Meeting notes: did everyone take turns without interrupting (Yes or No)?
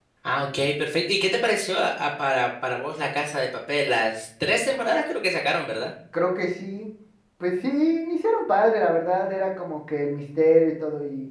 Yes